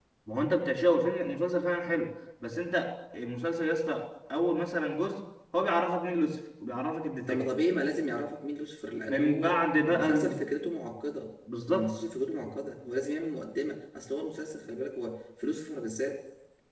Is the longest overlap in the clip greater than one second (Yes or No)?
Yes